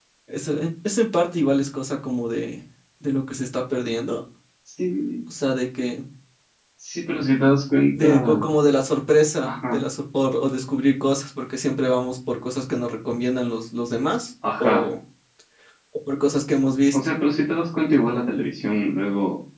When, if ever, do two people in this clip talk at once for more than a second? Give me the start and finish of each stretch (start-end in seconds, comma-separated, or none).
none